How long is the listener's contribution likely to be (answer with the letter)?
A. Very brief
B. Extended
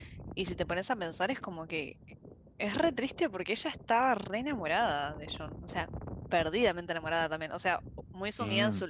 A